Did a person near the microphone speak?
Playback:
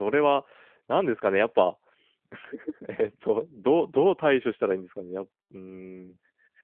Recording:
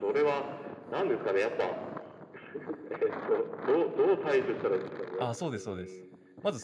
Yes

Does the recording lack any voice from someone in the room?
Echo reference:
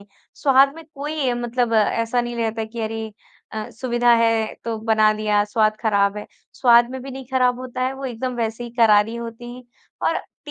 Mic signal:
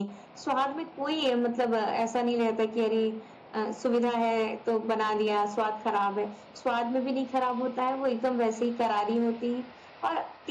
Yes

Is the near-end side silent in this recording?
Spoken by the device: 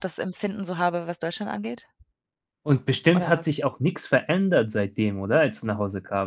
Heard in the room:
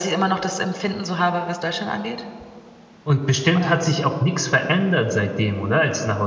Yes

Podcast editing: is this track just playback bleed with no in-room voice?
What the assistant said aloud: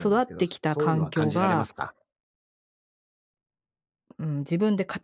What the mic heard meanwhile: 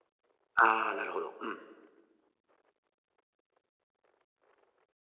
No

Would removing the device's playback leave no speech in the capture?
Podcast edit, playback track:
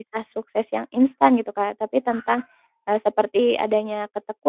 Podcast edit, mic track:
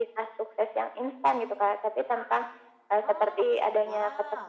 No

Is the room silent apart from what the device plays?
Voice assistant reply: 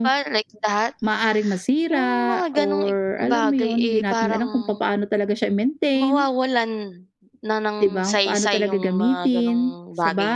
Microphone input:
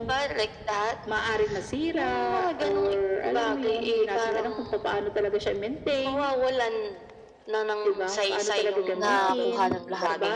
No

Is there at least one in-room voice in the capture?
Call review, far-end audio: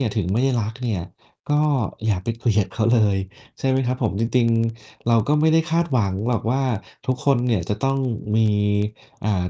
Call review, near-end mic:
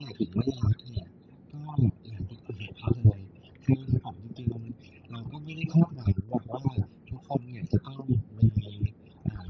No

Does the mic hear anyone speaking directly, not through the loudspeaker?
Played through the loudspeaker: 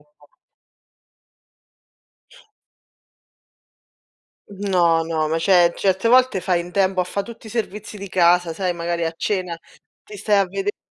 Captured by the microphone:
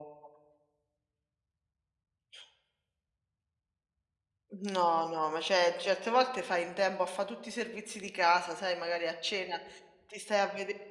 No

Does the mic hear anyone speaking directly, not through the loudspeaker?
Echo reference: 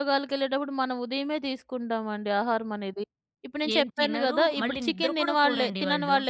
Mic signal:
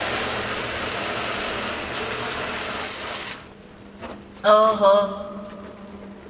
Yes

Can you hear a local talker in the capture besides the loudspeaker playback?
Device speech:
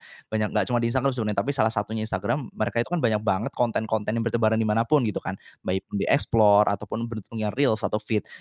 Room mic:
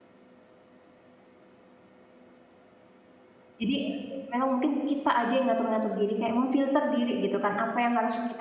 Yes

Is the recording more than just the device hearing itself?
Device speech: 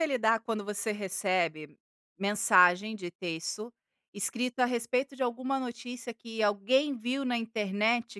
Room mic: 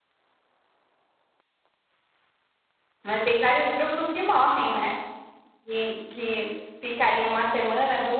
Yes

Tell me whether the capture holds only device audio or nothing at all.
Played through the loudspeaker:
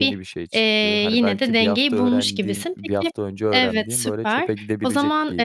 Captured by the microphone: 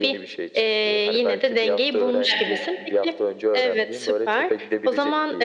No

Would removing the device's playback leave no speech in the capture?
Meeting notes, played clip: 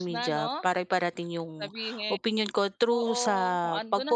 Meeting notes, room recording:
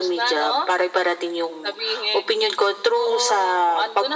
Yes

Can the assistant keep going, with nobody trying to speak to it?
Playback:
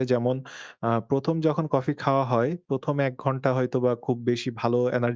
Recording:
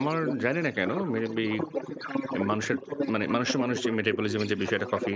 No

